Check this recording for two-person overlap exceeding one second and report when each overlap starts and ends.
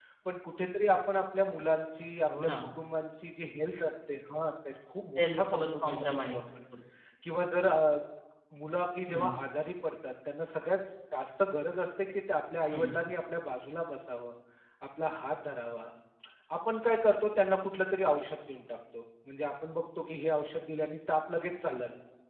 5.2-6.4

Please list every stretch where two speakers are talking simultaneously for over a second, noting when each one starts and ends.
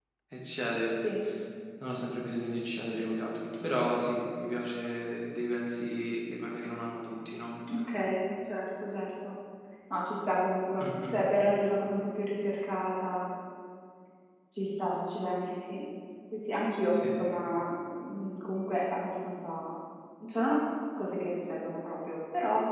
none

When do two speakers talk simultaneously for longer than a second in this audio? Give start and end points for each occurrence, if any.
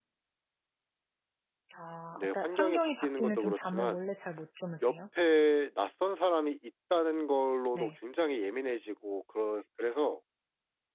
2.2-4.0

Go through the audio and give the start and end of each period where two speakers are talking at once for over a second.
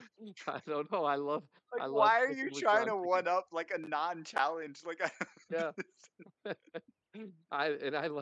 1.8-3.2

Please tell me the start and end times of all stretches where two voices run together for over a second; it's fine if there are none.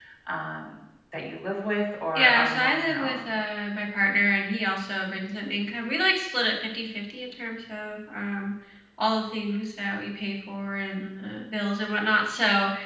2.2-3.4

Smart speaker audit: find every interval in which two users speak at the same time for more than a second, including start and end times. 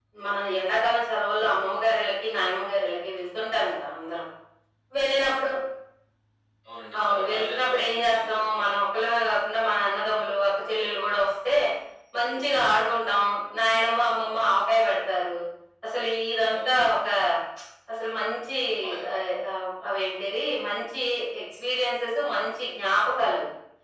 7.0-8.7

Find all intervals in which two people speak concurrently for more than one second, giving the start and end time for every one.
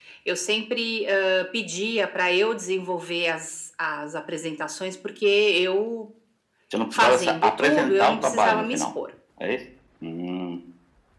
6.9-8.8

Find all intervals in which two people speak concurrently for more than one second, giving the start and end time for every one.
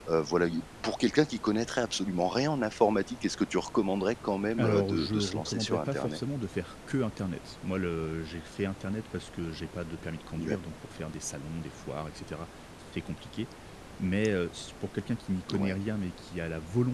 4.6-6.2

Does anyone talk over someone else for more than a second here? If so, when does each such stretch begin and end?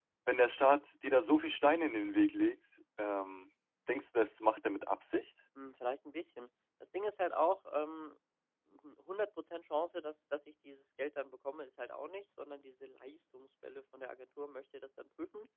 none

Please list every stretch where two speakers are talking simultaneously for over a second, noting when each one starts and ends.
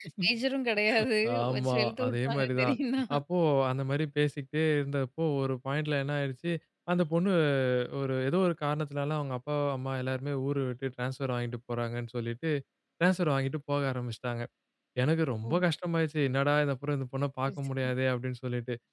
1.5-2.7

